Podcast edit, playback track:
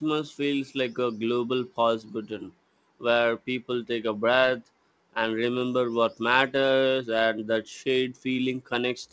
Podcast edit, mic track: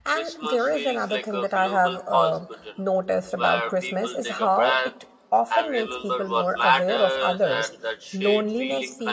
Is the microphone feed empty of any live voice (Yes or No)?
No